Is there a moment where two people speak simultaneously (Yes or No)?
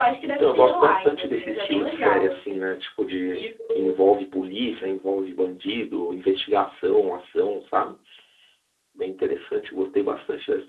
Yes